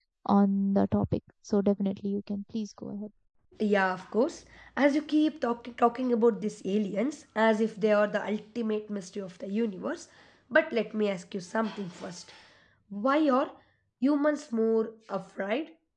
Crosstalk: none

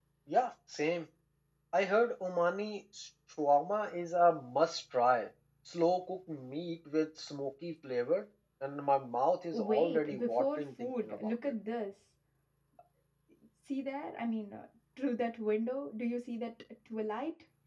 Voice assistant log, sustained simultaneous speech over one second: present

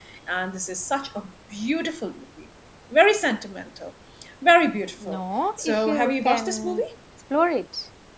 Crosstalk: present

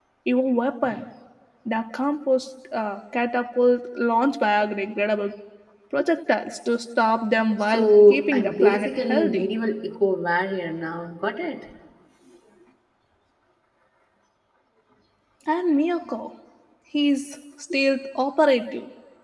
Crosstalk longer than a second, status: present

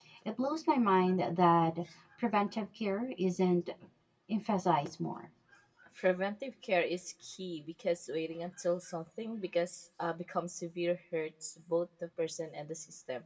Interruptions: none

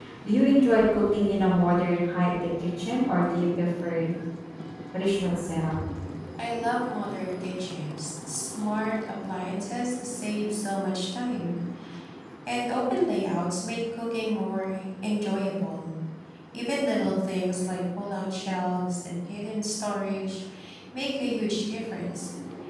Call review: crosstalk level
none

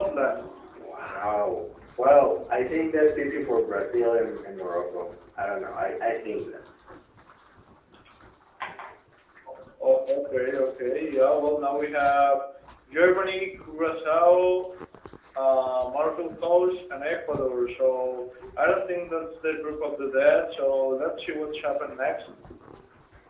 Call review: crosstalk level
none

